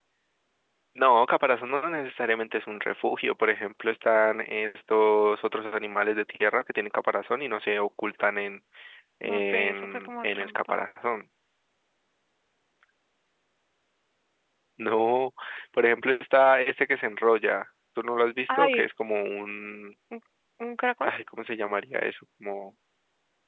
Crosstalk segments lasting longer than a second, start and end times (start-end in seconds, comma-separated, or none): 9.2-10.8